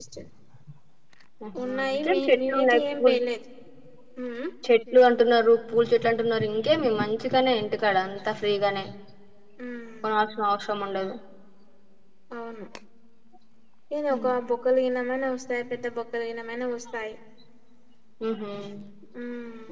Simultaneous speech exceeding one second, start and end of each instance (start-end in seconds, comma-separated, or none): 1.6-3.1